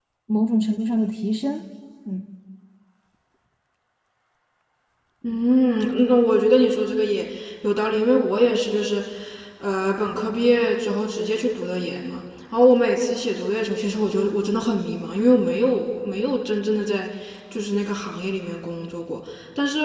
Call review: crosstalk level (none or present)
none